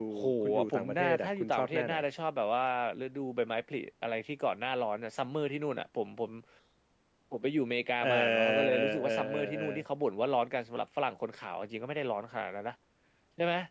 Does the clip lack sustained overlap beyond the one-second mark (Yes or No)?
No